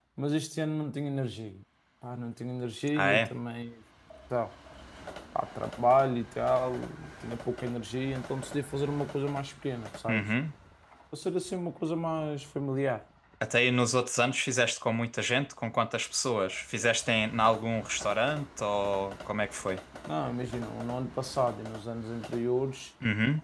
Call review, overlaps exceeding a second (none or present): none